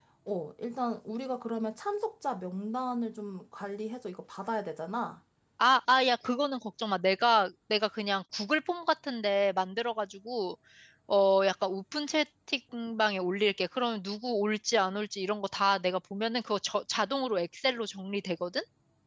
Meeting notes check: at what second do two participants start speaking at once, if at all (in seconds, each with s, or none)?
none